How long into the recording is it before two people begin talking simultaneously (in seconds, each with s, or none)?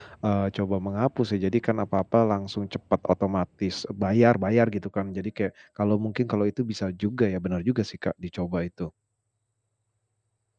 none